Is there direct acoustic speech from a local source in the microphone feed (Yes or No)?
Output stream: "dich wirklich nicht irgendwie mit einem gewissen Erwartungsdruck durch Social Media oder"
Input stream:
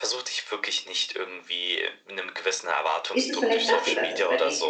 Yes